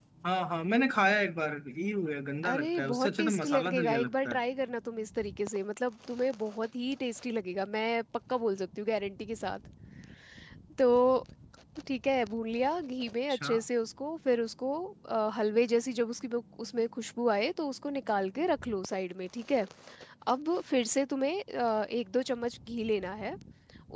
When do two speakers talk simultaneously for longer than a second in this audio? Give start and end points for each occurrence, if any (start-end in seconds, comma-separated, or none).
2.5-4.4